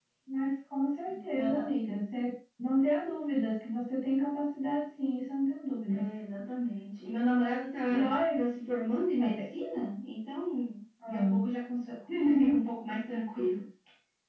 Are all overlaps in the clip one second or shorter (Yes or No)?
Yes